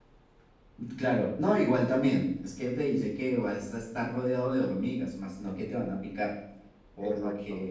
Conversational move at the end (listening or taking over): listening